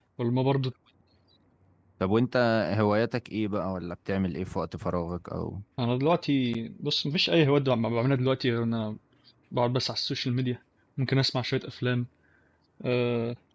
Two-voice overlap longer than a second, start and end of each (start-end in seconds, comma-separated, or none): none